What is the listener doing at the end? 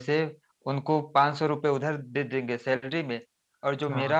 listening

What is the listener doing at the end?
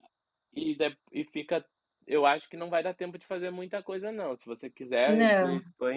listening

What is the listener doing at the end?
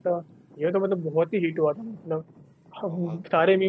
listening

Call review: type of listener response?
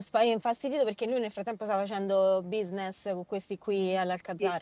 taking over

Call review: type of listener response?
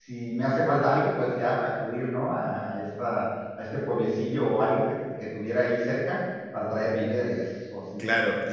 taking over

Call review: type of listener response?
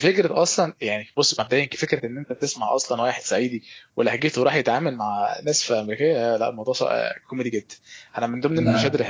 listening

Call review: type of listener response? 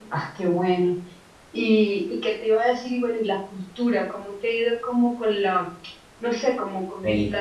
listening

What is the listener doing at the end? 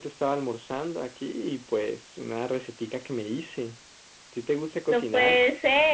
taking over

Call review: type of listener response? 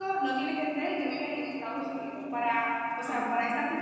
listening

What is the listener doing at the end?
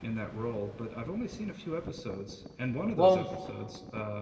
listening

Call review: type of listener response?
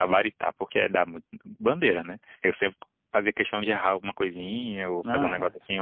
listening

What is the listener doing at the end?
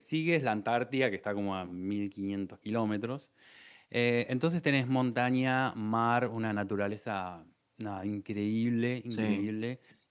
listening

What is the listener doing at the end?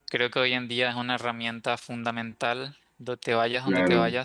taking over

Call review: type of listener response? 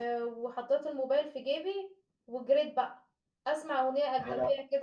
listening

